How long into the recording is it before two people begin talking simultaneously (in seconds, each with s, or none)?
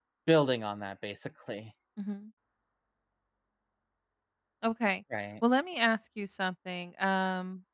none